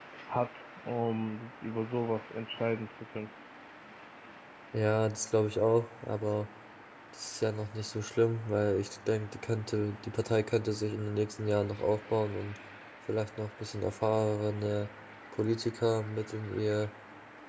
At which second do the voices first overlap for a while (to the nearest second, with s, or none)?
none